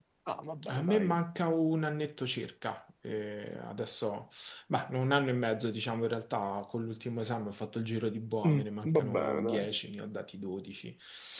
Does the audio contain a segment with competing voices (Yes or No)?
Yes